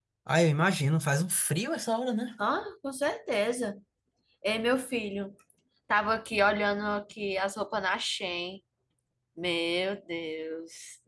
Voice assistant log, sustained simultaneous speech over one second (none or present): none